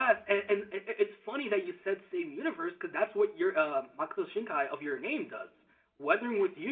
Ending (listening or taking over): listening